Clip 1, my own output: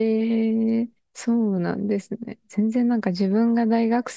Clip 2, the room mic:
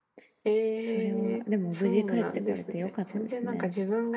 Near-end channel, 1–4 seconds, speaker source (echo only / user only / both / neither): both